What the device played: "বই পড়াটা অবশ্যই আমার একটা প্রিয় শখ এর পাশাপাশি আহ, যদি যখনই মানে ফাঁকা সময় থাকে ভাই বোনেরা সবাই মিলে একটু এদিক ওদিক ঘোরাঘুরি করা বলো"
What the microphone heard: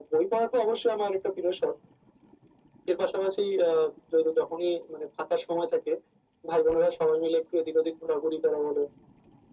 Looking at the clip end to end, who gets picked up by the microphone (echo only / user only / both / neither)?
echo only